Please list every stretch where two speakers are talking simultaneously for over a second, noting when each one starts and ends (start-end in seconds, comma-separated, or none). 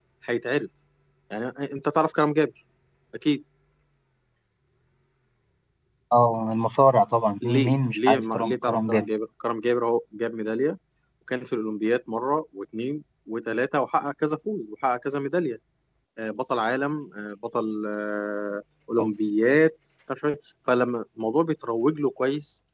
7.4-9.1